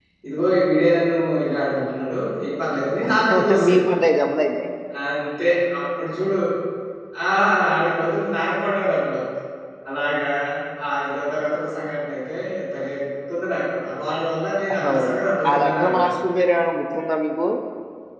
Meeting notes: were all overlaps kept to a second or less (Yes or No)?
No